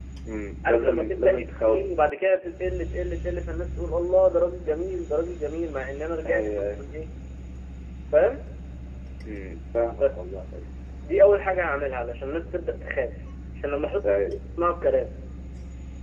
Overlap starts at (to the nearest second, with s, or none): 1 s